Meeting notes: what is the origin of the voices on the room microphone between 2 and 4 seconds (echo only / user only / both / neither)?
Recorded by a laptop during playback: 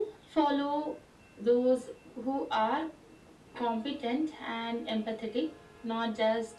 echo only